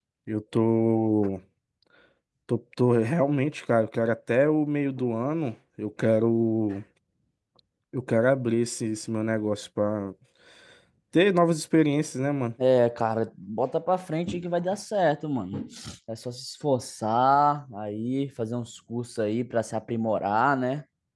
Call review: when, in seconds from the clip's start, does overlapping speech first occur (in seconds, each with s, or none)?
none